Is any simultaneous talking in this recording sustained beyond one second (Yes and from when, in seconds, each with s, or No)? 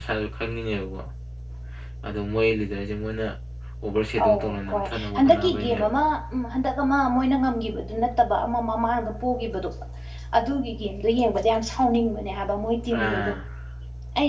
Yes, from 4.2 s